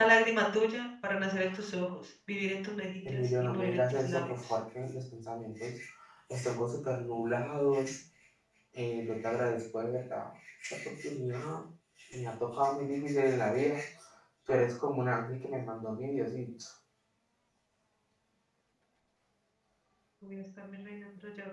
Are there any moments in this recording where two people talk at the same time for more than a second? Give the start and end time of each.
3.0-4.3

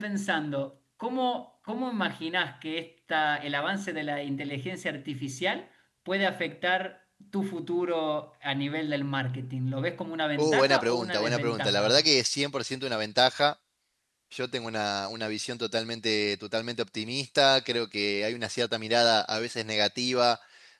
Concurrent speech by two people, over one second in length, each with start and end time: 10.4-12.0

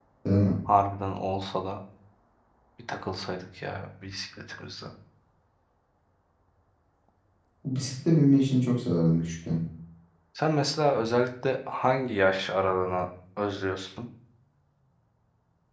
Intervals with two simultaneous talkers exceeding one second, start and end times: none

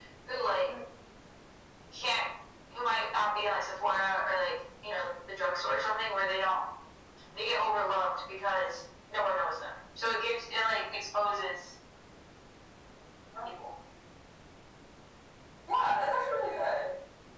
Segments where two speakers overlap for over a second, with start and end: none

